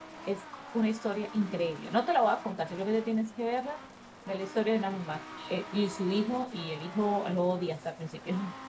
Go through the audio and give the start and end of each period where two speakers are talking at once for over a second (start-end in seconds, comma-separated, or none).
none